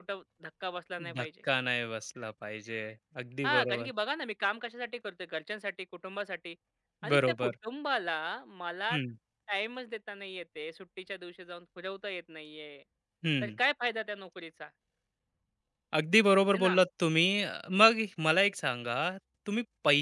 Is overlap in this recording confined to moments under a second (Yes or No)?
Yes